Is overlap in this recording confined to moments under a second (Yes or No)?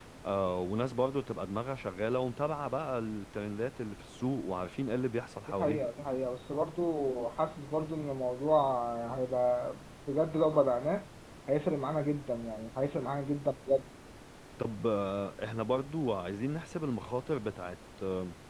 Yes